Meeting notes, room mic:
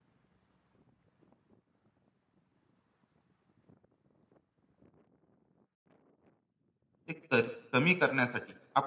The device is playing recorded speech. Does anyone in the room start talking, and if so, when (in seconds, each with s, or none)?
7.1 s